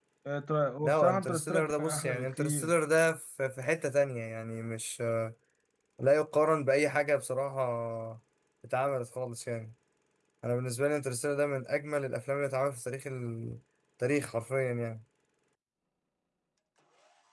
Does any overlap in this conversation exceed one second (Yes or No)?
Yes